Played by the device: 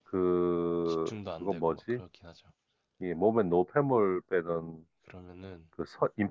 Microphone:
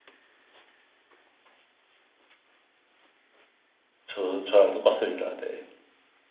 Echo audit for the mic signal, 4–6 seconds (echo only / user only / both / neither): user only